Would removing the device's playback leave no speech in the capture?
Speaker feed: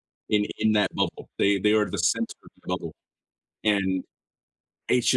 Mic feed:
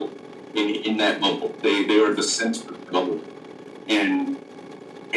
Yes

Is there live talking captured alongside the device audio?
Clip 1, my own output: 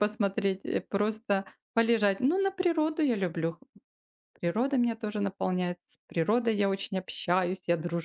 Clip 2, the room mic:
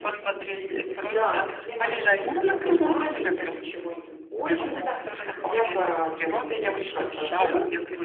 Yes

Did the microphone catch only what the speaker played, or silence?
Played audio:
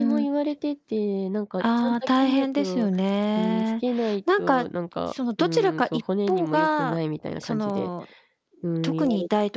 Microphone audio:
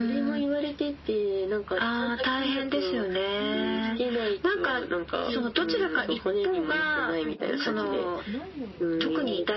No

